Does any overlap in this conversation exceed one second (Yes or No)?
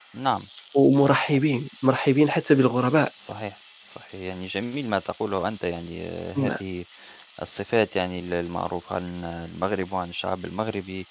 No